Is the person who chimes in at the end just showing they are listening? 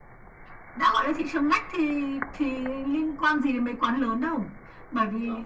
Yes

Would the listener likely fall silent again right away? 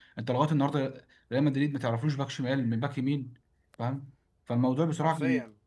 Yes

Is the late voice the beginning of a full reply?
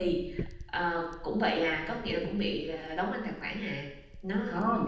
Yes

